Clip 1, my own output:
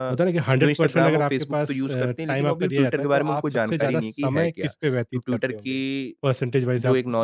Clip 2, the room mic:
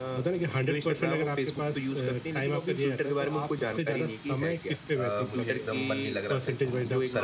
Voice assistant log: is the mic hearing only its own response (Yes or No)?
No